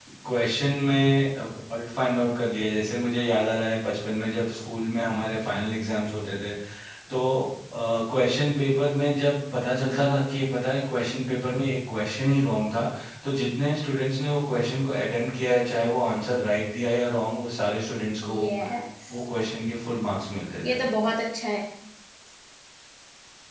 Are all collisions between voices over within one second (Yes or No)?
Yes